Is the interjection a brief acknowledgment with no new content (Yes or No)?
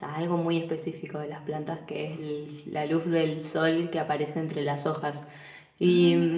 Yes